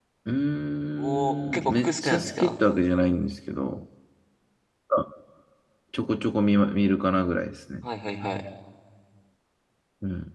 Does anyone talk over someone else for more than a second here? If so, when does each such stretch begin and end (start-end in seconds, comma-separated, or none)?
1.0-2.6